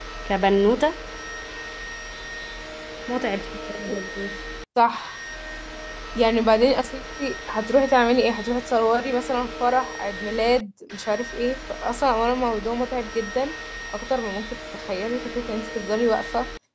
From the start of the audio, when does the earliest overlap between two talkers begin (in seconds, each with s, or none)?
none